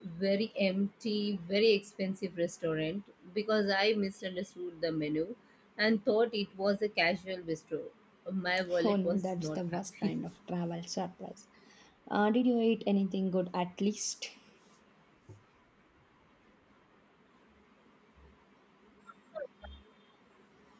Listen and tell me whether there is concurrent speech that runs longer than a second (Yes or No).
Yes